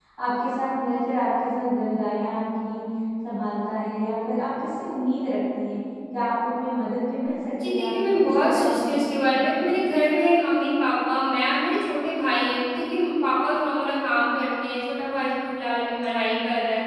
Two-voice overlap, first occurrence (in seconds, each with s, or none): 7.6 s